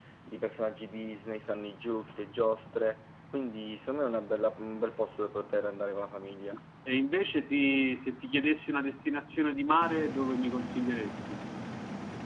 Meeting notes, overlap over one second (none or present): none